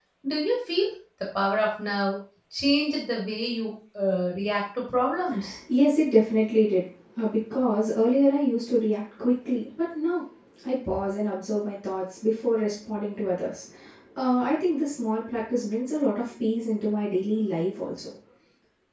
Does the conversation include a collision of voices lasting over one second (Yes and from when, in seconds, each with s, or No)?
No